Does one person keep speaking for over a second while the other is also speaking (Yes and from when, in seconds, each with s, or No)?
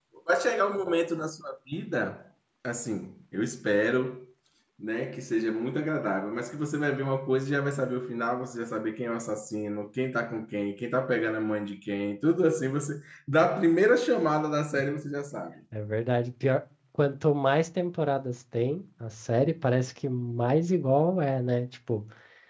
No